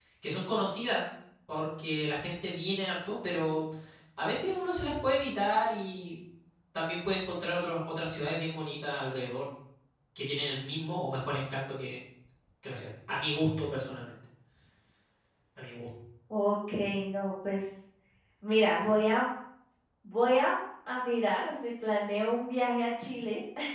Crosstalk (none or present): none